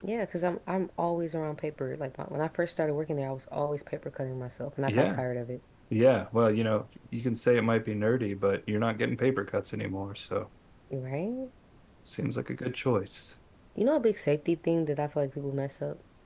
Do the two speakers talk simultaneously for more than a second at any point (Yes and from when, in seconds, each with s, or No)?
No